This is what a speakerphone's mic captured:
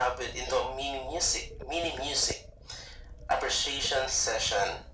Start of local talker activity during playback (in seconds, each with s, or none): none